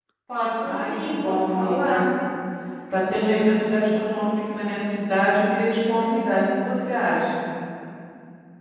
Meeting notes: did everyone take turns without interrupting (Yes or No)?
No